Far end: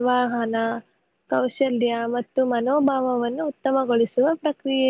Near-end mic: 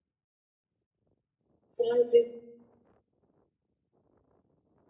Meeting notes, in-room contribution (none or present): present